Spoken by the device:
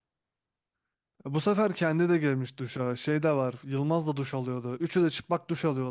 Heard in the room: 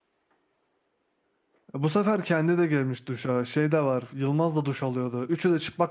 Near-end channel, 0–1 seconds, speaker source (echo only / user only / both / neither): neither